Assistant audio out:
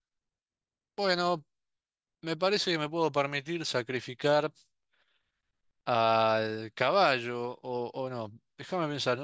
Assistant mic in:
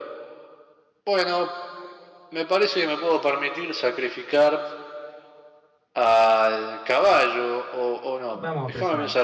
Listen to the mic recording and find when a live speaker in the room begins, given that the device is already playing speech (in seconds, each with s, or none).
8.3 s